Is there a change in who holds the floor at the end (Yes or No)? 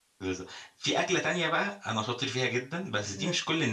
No